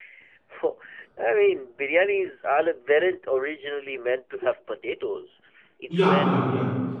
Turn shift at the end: Yes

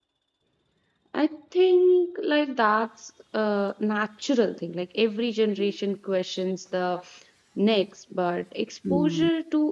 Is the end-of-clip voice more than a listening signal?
No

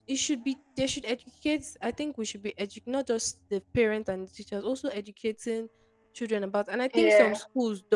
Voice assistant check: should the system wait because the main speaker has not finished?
Yes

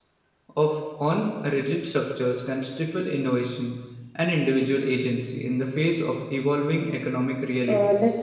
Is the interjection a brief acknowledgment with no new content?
No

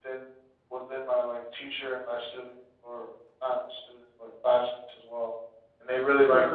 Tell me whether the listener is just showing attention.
Yes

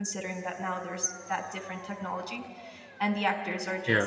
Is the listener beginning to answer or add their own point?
No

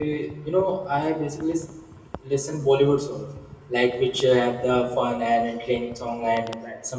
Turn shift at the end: Yes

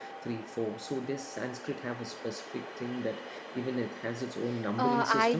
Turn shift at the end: Yes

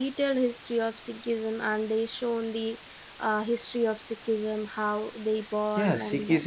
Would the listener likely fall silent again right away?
No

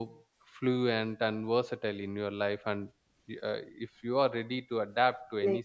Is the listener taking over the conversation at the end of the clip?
Yes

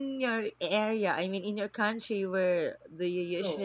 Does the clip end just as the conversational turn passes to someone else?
Yes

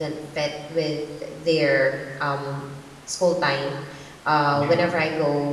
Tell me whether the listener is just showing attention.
Yes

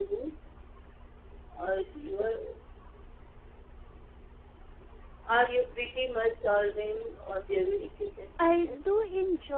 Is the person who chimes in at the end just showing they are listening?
No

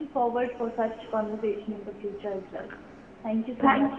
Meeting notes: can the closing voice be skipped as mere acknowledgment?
No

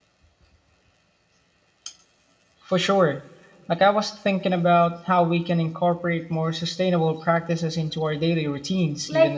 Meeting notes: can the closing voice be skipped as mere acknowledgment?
No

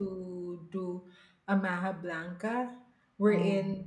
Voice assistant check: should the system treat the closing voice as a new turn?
No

